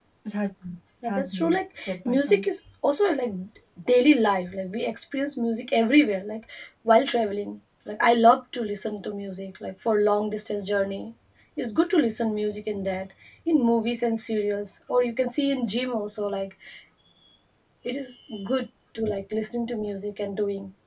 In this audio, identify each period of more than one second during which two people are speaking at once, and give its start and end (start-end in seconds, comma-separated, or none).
1.1-2.4